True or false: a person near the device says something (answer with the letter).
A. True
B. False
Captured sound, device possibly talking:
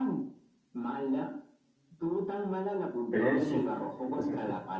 A